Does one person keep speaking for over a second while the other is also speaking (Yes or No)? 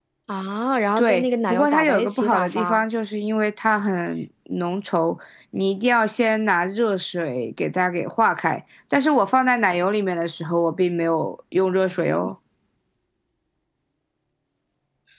Yes